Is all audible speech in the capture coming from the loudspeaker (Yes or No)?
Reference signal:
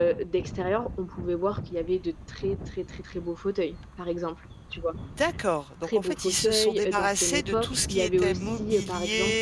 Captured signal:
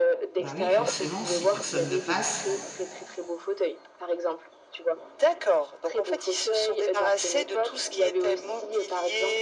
No